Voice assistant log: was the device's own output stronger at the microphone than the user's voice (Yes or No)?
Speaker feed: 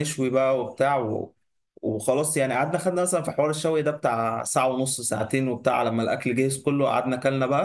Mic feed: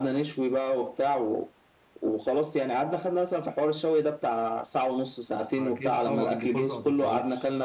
Yes